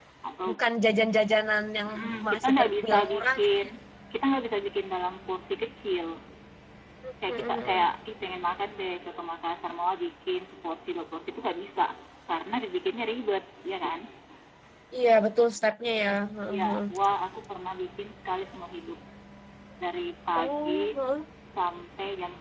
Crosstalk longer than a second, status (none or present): present